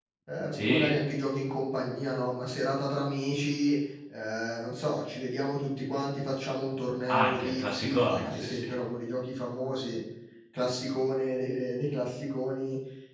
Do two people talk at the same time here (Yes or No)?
Yes